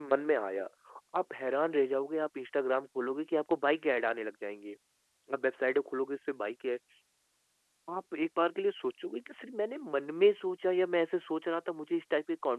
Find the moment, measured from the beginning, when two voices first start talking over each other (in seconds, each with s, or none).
none